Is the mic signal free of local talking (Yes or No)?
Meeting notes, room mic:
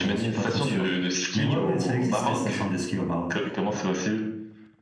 Yes